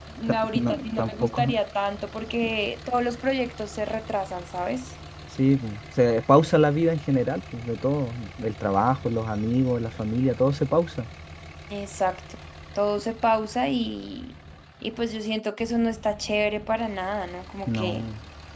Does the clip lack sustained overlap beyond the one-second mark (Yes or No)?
No